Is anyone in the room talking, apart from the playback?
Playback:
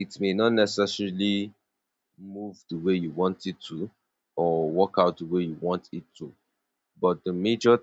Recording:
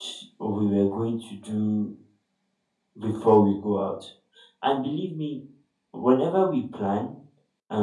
Yes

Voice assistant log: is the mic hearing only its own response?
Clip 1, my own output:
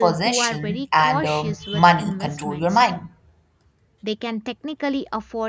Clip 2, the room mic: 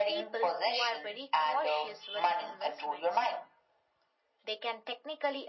Yes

